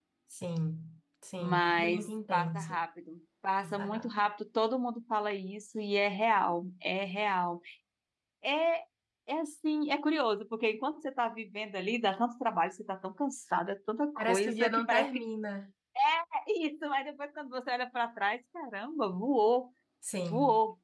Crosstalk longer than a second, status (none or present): present